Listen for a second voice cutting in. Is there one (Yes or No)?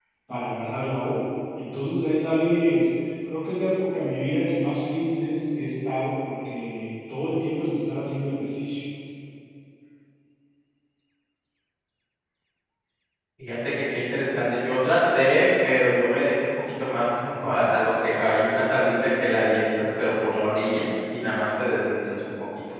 No